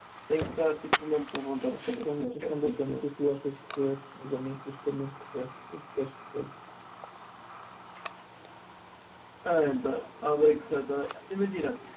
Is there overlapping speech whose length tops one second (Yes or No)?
Yes